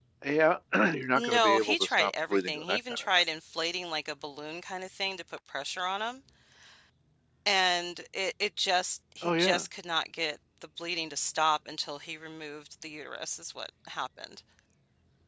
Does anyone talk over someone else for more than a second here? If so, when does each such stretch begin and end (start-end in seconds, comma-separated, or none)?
1.2-3.1